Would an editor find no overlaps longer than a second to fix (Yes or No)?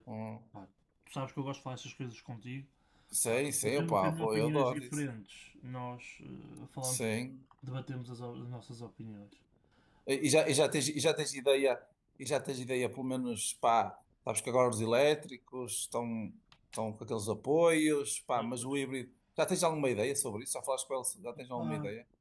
No